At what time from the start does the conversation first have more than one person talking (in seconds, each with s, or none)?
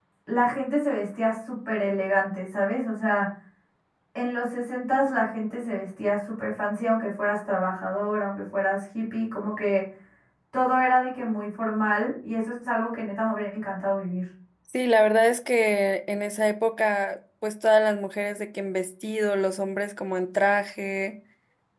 none